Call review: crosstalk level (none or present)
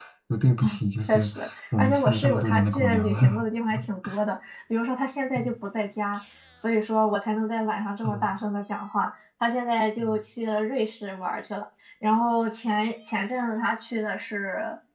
present